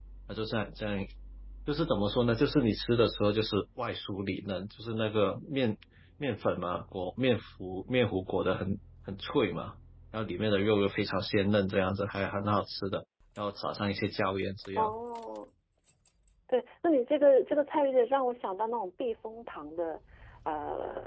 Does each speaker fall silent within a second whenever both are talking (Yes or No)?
Yes